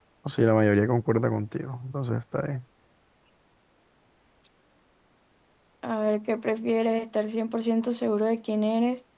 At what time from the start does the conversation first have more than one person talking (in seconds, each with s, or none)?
none